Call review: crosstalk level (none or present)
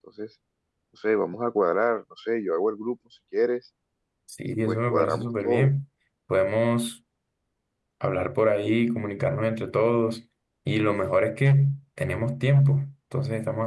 present